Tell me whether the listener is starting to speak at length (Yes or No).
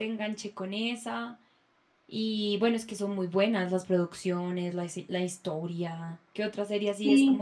Yes